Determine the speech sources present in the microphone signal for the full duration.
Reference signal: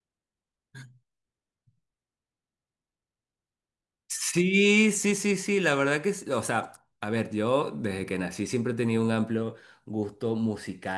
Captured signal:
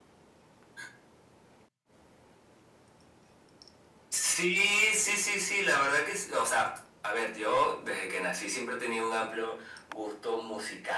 echo only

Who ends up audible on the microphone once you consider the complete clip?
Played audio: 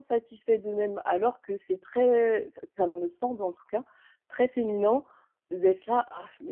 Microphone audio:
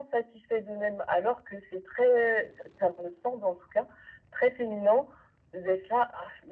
echo only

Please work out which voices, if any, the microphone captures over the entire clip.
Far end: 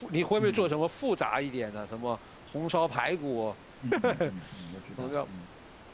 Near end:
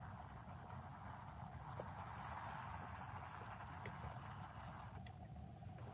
neither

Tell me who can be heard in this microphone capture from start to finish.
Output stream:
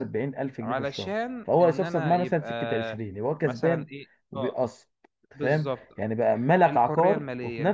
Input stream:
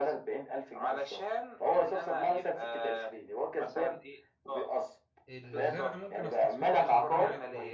both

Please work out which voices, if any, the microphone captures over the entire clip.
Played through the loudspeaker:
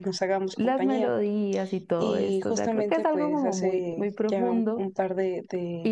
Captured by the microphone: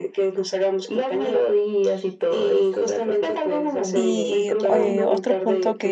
both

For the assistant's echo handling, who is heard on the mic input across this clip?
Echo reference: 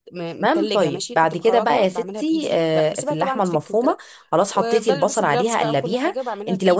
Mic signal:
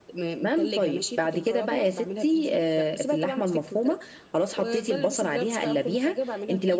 echo only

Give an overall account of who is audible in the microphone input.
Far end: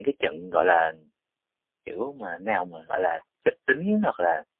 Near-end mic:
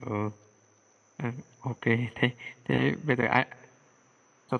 user only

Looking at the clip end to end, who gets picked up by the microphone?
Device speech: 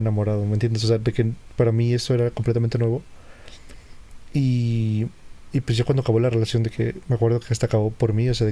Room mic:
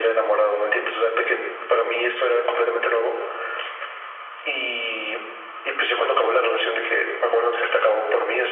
echo only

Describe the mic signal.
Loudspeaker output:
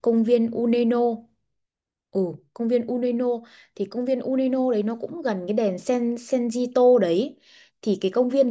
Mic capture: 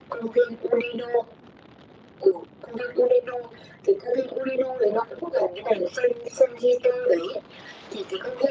echo only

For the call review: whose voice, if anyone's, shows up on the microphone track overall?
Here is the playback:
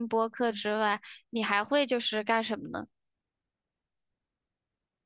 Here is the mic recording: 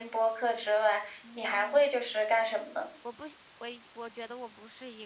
both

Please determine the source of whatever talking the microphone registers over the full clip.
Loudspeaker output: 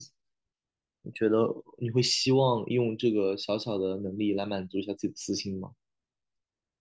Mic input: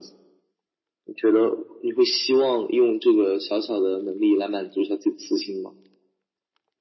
echo only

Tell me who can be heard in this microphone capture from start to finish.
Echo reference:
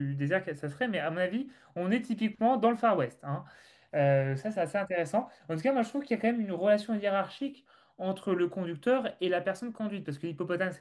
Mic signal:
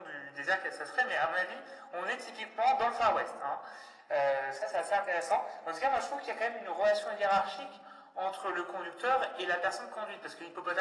echo only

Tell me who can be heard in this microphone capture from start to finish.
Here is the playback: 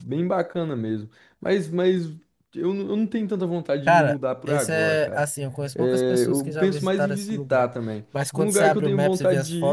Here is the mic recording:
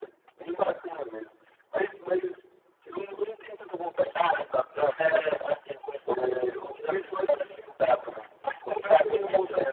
echo only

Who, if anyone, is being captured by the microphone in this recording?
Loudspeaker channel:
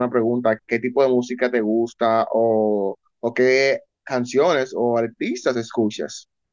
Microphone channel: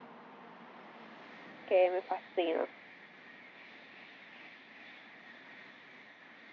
user only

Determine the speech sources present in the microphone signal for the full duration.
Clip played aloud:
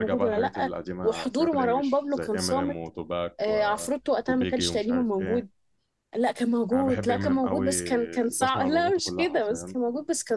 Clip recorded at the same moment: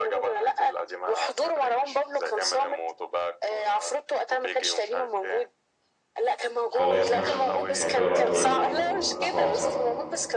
both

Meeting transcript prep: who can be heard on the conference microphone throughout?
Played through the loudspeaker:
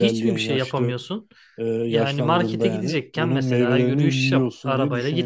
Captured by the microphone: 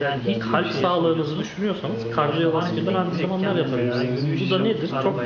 both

